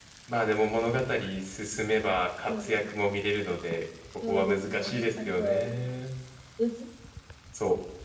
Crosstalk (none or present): present